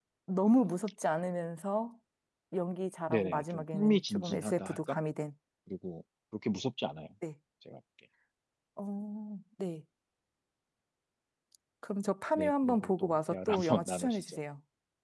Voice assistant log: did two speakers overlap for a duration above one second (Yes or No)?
Yes